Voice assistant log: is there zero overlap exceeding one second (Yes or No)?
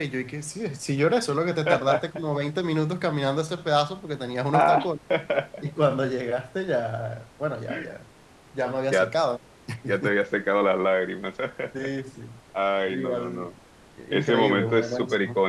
No